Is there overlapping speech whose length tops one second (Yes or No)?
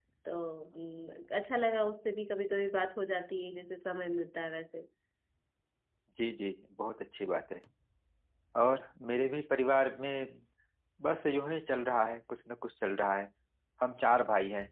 No